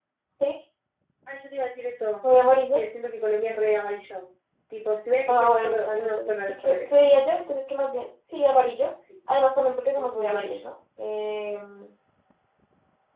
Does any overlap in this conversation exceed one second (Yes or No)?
Yes